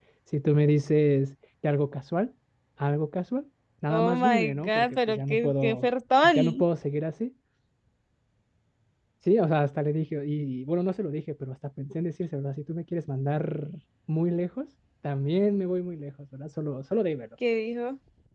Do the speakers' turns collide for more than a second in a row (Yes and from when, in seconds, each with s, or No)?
Yes, from 3.9 s